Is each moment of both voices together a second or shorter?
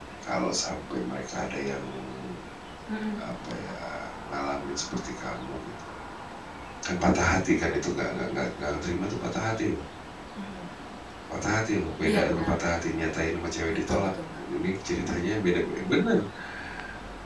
Yes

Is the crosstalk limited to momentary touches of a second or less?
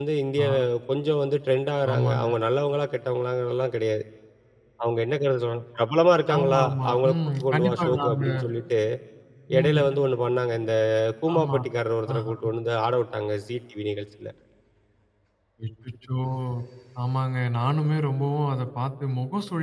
No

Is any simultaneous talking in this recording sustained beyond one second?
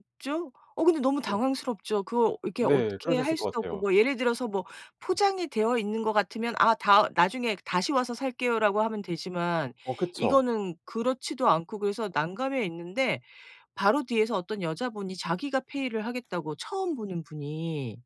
Yes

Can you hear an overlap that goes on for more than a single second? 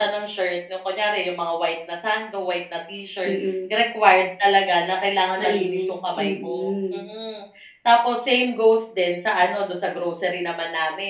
Yes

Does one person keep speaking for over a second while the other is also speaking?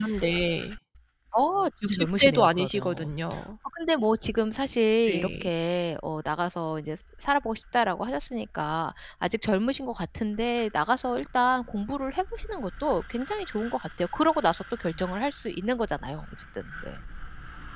Yes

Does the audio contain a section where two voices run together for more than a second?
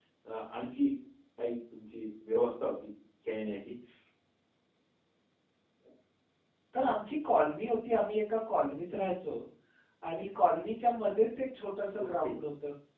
No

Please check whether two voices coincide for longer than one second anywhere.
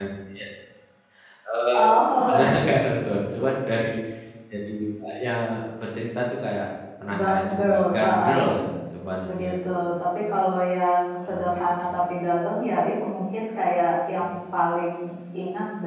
Yes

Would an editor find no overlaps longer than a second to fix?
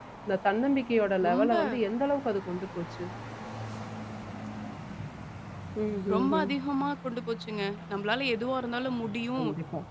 Yes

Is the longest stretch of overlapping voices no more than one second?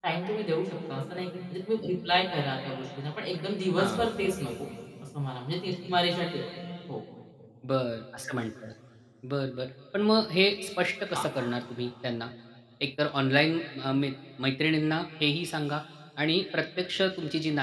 Yes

